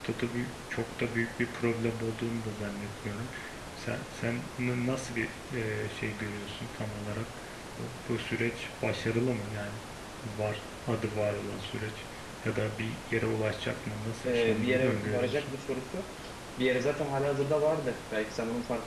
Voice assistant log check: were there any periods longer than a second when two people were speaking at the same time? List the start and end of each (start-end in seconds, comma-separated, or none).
14.3-15.5